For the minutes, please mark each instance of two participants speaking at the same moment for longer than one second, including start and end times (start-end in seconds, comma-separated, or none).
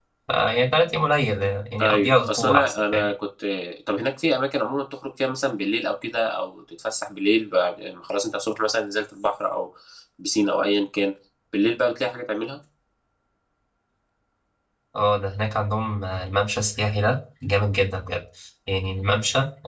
1.8-3.1